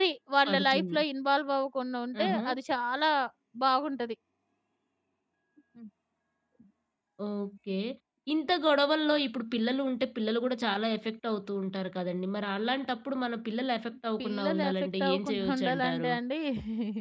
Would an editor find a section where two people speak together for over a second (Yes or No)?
Yes